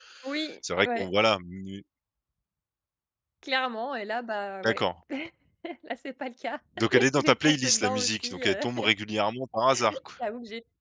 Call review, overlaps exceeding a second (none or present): present